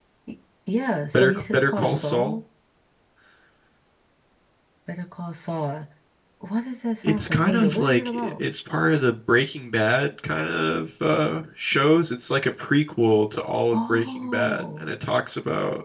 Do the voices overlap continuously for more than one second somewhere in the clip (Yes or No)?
Yes